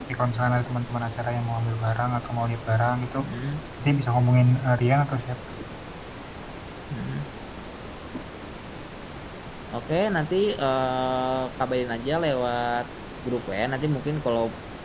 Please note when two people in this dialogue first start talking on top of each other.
none

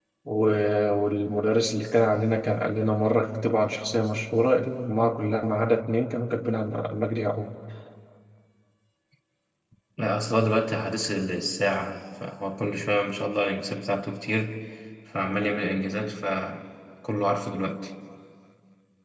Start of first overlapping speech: none

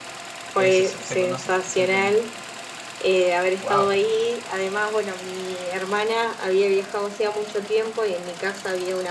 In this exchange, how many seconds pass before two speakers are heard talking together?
0.6 s

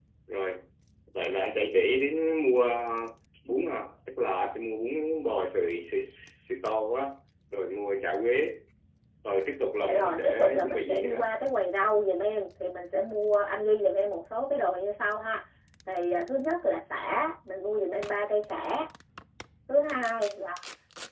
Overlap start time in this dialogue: 9.8 s

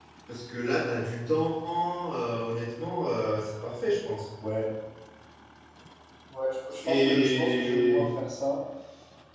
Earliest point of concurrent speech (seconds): 6.8 s

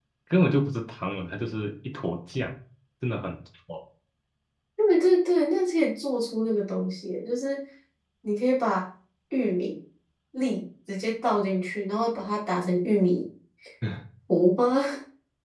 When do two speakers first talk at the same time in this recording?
none

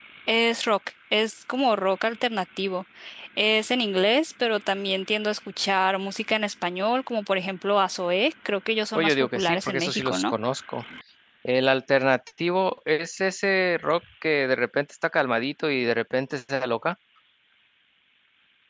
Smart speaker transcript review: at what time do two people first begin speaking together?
8.9 s

